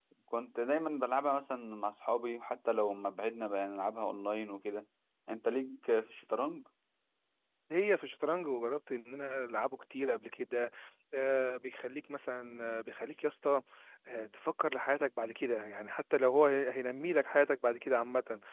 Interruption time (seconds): none

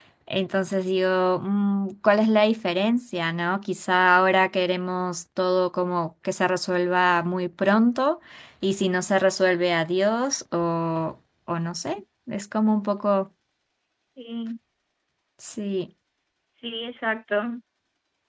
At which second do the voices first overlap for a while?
none

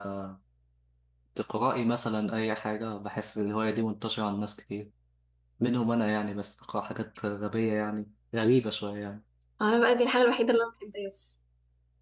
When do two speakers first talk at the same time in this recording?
none

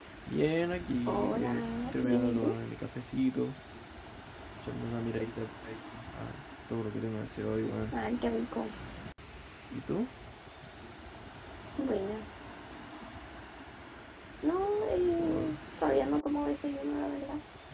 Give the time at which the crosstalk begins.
1.1 s

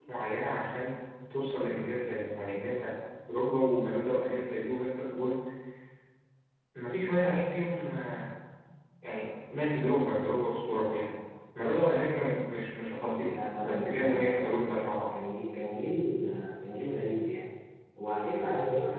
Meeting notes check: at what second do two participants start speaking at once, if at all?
13.2 s

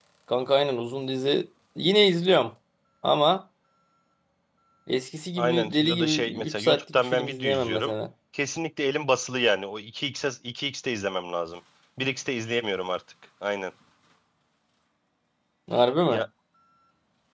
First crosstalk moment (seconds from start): 5.4 s

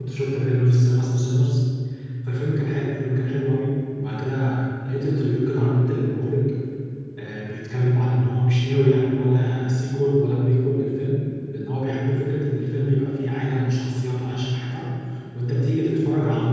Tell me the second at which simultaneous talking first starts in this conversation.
none

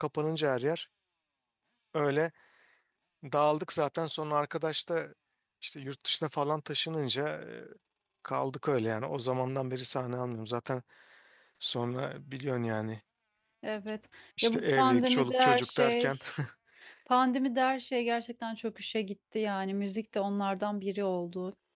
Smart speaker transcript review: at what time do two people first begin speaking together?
14.4 s

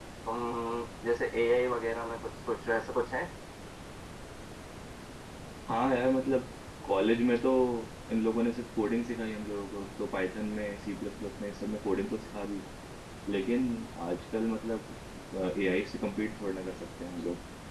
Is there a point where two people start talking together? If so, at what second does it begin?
none

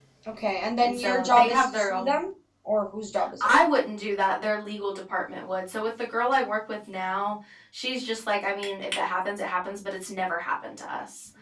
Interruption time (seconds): 0.8 s

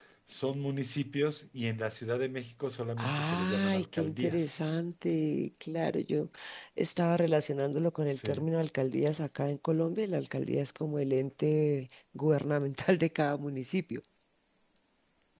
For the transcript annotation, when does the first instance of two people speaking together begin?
3.0 s

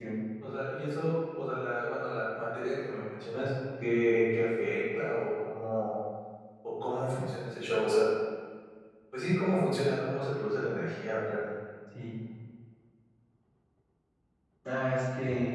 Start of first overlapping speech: none

